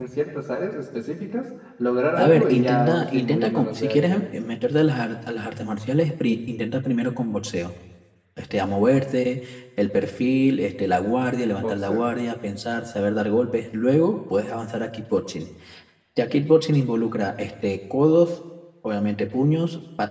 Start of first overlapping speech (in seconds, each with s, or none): 2.2 s